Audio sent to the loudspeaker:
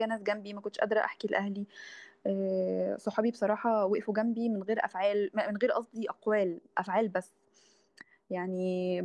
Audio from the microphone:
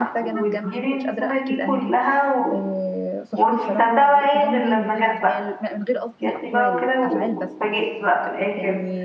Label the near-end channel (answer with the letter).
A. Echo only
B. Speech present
B